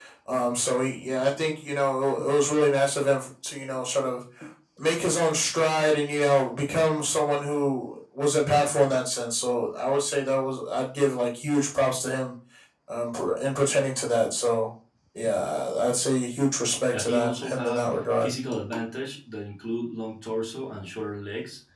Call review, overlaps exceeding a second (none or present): present